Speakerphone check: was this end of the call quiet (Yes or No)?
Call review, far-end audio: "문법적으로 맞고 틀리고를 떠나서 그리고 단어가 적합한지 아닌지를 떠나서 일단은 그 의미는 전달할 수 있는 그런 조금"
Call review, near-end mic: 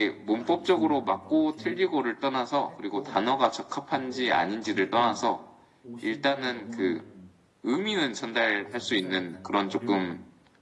No